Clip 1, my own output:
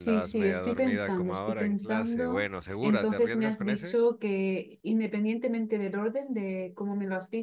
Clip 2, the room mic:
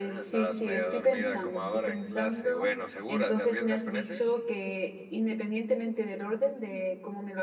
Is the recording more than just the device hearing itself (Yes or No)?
No